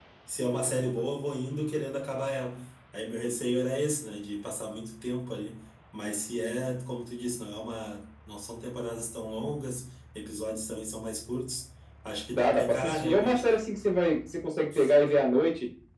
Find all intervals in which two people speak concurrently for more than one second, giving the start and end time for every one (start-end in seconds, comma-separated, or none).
12.3-13.6